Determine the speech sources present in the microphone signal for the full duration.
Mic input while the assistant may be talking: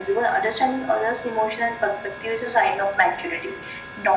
echo only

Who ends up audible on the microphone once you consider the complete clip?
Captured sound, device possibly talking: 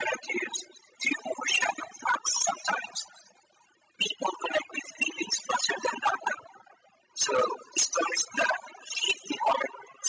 echo only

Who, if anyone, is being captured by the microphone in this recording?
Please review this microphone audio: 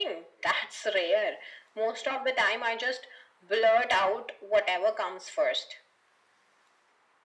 echo only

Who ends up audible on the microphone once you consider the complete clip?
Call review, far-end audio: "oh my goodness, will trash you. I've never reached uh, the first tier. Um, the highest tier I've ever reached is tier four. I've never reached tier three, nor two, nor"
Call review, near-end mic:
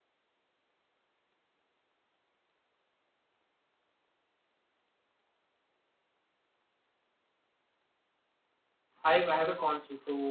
user only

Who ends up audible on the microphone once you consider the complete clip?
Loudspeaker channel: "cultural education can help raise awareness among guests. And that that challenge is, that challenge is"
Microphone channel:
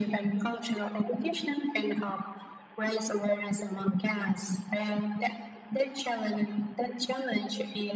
echo only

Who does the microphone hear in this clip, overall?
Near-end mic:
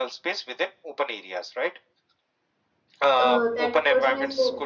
both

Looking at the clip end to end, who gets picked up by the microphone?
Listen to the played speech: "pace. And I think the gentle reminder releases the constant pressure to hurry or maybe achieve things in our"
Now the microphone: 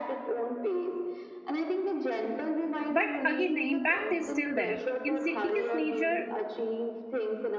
both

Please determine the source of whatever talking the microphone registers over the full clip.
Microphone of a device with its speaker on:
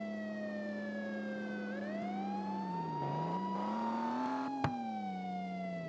neither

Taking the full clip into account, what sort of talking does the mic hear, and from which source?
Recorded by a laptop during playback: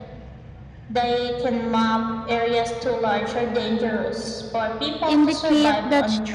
both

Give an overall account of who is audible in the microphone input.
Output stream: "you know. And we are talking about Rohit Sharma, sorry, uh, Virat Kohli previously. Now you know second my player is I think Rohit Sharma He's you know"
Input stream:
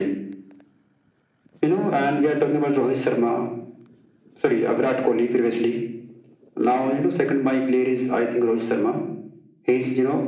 echo only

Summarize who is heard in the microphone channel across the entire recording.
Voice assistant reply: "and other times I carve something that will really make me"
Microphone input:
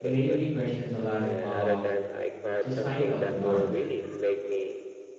both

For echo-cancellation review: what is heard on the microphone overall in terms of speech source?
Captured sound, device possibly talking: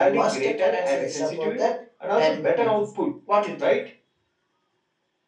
echo only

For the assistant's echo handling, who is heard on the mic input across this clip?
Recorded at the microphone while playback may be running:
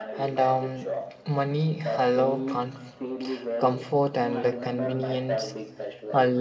both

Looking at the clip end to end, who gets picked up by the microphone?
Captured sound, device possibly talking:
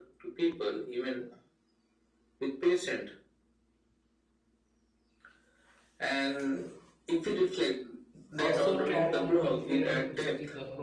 both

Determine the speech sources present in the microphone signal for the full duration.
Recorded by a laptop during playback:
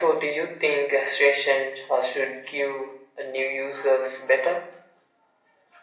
echo only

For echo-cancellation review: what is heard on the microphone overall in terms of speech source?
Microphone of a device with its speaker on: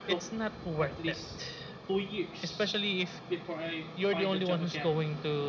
both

